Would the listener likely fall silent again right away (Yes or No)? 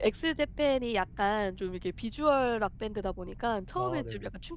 Yes